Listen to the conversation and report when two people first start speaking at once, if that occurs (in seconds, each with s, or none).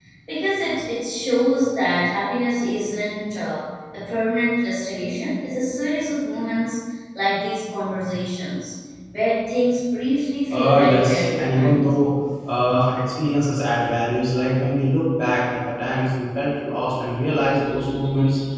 10.5 s